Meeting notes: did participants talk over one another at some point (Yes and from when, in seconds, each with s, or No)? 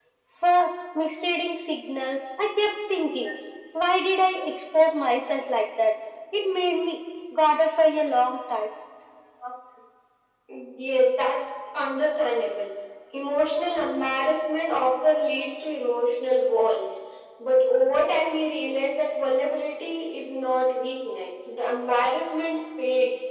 No